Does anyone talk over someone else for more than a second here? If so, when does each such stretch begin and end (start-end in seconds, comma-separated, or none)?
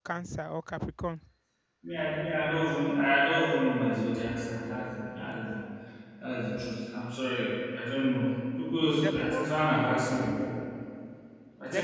none